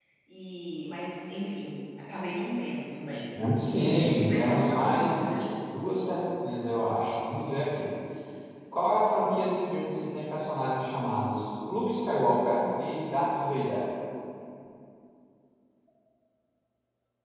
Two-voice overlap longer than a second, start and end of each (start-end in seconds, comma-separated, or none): 4.0-5.5